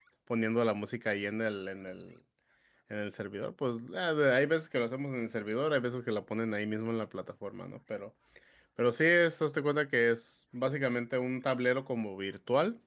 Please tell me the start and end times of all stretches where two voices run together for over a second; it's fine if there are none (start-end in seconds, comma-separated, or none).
none